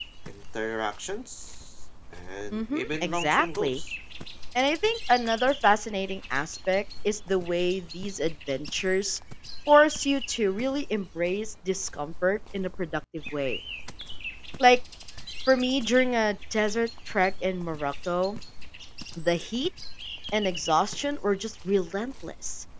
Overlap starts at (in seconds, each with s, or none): 2.5 s